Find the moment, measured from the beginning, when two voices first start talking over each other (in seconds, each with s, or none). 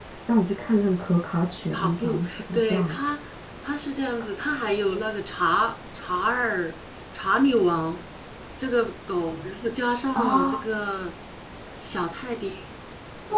1.7 s